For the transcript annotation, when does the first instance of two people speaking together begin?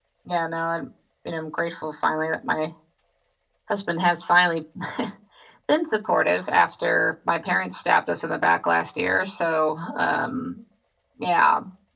none

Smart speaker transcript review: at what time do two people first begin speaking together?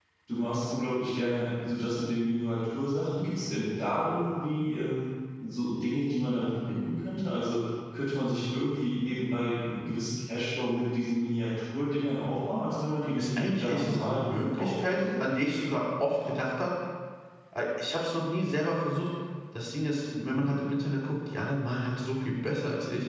13.2 s

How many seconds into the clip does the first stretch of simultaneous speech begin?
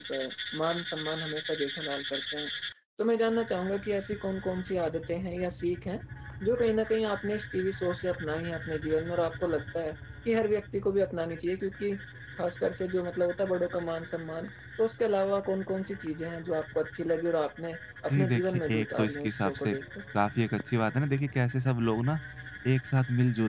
18.1 s

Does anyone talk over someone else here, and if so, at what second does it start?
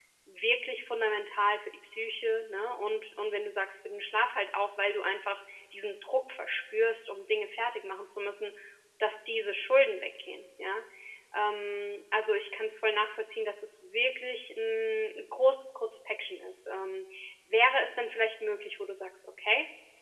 none

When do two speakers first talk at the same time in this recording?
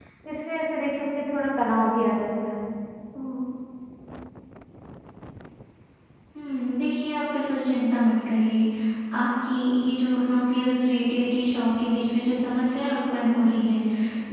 none

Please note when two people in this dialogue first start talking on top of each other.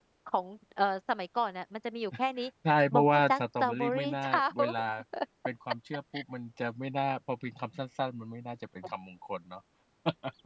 2.9 s

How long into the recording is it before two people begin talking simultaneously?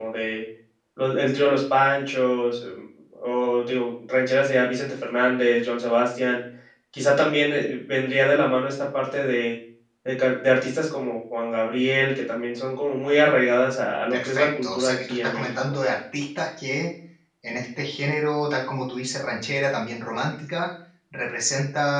14.1 s

